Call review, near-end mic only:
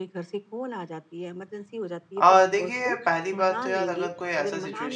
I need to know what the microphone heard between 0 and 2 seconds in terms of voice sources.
echo only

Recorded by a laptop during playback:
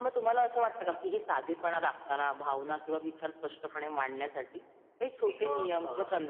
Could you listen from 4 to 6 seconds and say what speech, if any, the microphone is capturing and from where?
both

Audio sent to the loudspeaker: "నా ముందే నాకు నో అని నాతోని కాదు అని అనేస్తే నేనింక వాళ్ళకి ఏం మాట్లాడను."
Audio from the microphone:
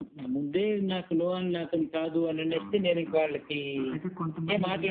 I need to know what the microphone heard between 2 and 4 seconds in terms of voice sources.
both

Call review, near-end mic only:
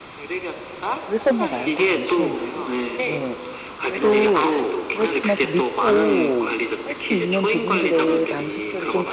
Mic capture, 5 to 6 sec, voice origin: both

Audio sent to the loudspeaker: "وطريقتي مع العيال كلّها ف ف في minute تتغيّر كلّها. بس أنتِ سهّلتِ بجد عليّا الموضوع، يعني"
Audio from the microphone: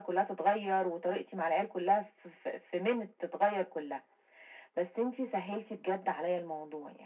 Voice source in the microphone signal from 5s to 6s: echo only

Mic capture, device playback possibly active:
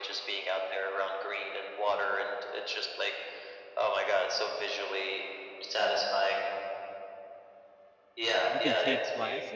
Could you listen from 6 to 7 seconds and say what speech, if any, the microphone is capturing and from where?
echo only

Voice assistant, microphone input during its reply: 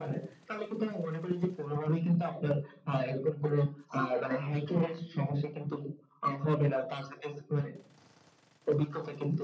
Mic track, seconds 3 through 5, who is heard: both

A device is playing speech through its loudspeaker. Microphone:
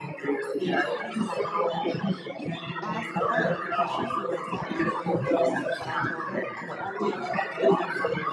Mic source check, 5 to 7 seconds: both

